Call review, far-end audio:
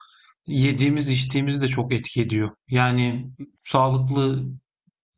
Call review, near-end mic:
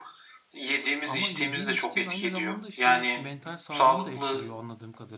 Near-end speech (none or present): present